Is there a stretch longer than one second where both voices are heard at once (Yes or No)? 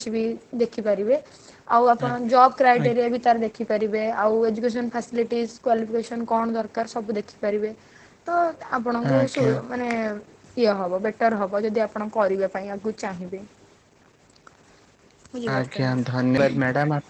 No